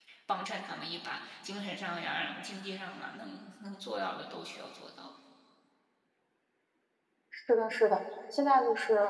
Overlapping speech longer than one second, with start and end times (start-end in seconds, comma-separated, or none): none